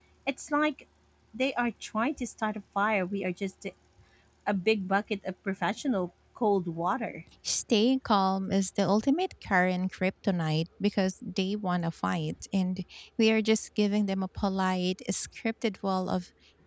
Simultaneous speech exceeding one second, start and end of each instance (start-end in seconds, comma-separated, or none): none